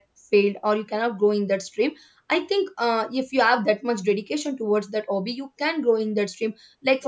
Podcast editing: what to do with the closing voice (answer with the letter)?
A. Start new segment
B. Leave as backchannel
B